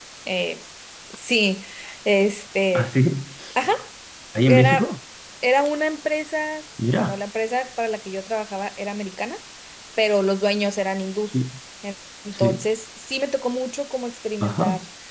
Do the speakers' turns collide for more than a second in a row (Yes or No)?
No